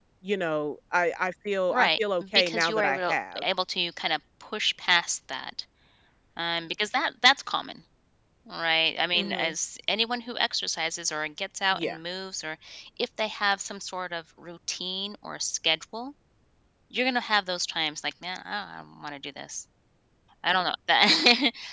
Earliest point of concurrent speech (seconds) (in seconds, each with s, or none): 1.7 s